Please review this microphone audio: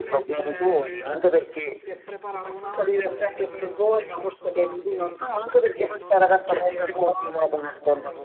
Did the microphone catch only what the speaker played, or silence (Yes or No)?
No